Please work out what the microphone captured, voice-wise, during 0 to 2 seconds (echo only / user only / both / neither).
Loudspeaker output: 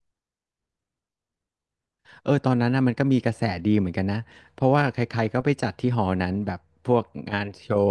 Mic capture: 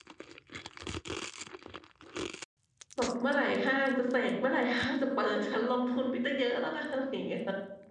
neither